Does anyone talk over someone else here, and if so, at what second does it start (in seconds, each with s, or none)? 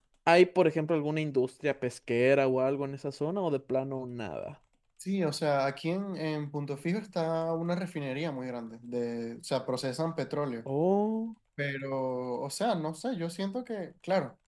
none